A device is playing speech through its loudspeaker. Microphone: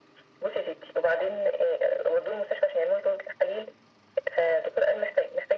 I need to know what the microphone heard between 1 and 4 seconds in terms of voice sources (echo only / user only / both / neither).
echo only